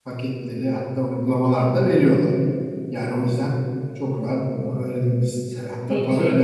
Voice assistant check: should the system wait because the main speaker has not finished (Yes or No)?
Yes